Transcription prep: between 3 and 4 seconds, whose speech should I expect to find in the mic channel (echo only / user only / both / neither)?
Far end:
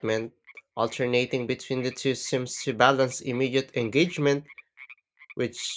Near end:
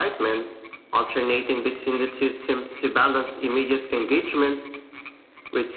echo only